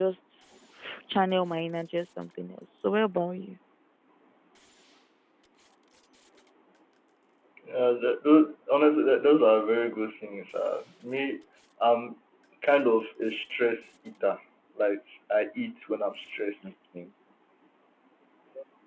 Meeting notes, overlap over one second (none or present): none